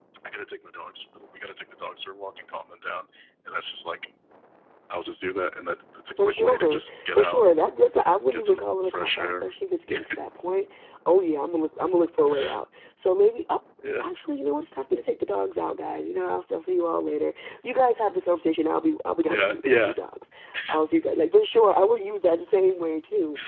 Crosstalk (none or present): present